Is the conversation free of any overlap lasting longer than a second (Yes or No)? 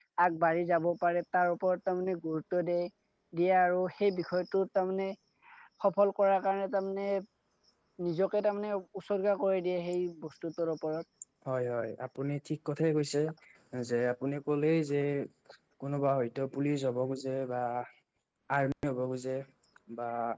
Yes